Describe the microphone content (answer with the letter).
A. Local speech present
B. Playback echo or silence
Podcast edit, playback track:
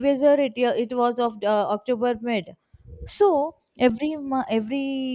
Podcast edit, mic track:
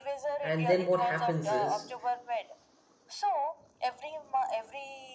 A